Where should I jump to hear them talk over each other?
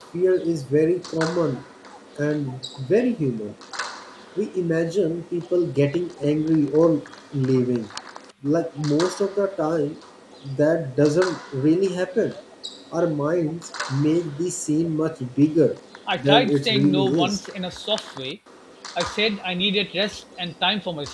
16 s

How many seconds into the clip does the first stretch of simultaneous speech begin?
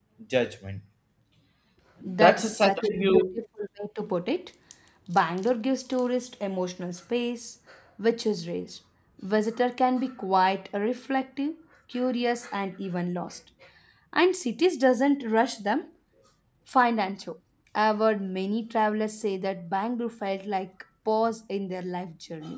2 s

